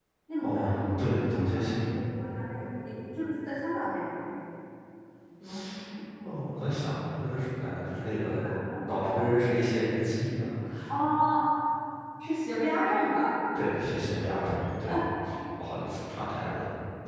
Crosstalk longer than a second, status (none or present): present